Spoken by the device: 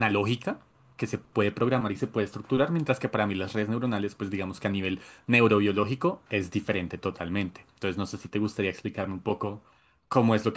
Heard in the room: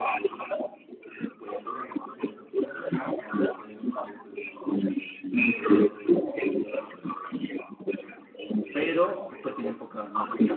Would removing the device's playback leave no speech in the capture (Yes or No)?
No